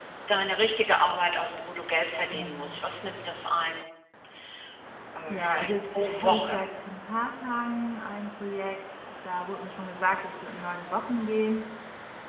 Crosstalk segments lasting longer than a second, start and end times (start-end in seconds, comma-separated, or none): 5.3-6.5